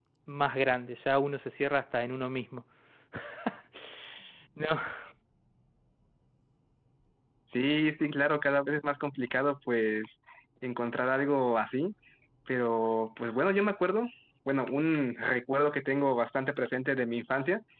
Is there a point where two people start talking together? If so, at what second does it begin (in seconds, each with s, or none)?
none